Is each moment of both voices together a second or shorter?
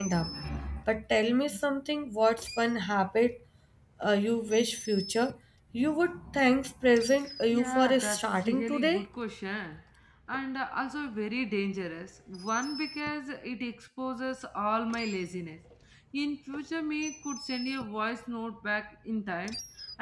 No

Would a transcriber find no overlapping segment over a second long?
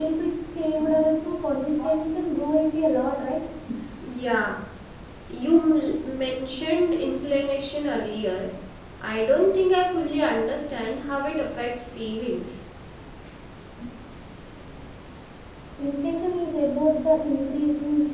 Yes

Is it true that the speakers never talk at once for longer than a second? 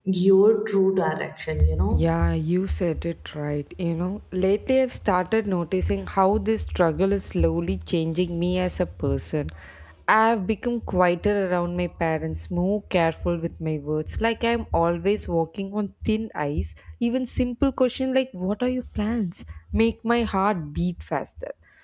Yes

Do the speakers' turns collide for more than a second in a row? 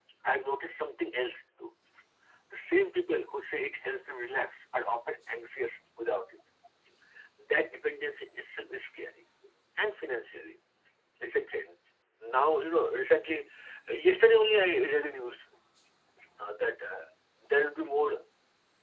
No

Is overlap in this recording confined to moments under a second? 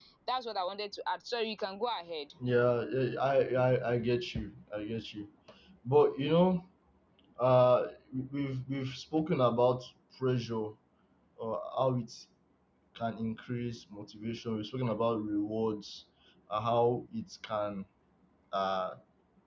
Yes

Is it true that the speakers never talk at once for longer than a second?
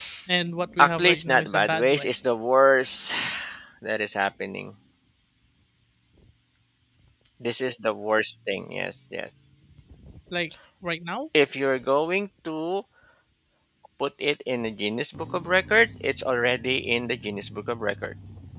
No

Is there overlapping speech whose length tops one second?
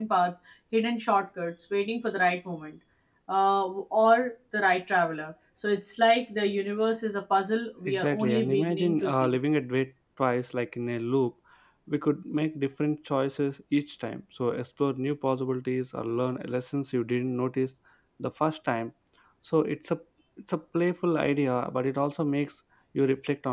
Yes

